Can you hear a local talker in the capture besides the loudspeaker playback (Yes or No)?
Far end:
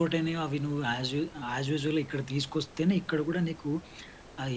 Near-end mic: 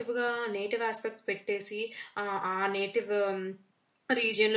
Yes